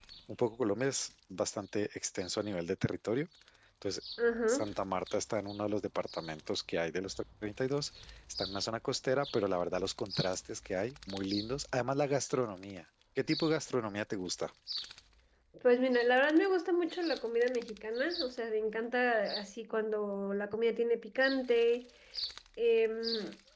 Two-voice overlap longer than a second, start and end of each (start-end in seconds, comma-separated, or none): none